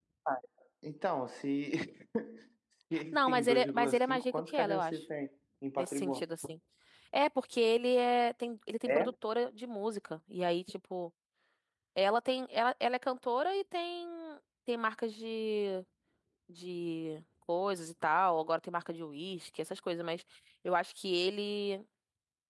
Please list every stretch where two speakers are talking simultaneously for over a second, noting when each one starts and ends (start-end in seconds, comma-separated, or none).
3.1-5.0